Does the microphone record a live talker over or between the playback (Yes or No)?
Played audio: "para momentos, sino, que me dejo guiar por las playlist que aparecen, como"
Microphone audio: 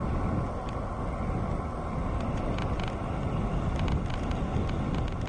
No